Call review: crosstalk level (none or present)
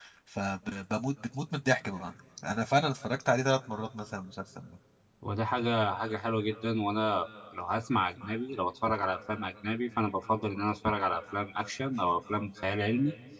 none